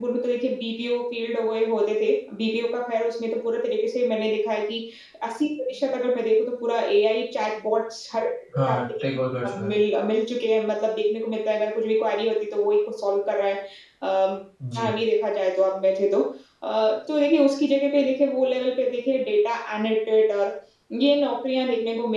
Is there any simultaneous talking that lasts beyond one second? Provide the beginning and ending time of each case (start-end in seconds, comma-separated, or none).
none